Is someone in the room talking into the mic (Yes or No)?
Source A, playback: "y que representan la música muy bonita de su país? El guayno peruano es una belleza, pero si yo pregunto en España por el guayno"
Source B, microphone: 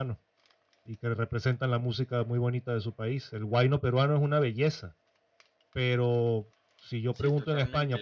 Yes